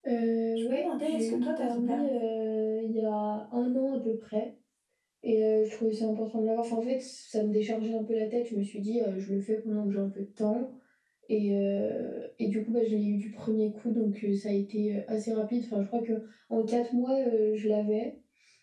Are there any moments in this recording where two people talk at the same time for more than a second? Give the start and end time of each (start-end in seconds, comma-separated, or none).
0.7-2.2